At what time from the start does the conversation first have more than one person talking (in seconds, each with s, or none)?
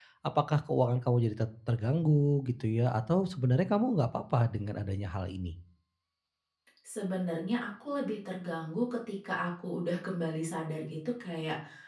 none